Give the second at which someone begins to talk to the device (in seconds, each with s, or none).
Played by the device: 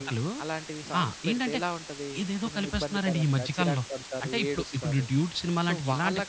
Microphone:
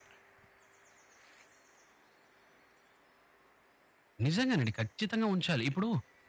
4.3 s